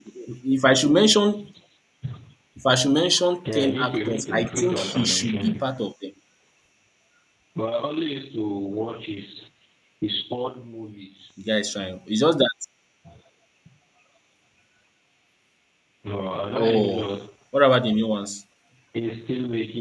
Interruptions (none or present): present